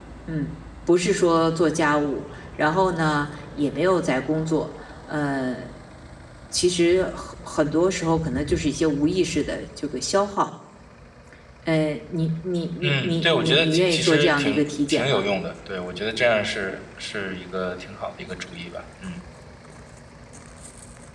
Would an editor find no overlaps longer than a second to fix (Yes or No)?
No